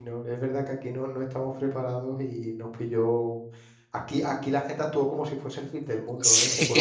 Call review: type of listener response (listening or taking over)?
listening